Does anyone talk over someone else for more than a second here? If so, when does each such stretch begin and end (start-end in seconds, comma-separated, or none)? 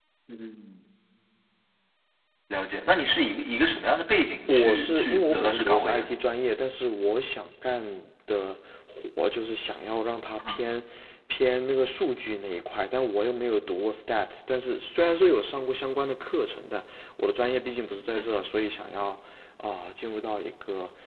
4.4-6.1